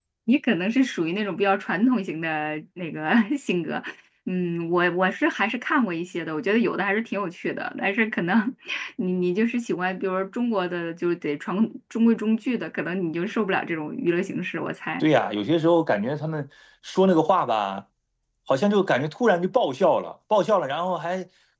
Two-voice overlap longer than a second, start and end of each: none

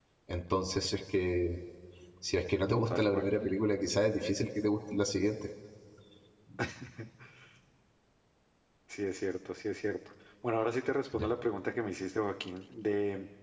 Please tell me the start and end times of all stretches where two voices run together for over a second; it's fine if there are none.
none

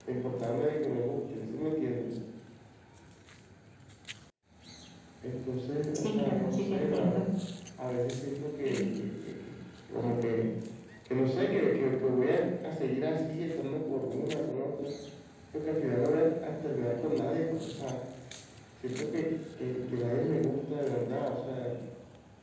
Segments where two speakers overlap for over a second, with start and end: 6.0-7.2

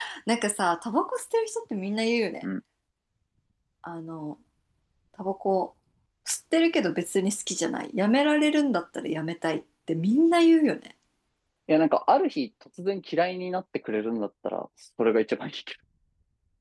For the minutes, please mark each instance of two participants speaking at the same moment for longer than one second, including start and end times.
none

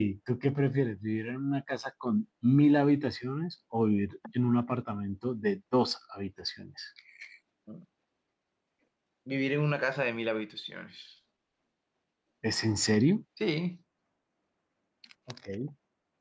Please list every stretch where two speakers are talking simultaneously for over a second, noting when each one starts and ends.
none

